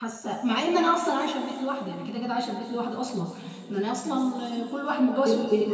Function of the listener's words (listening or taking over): listening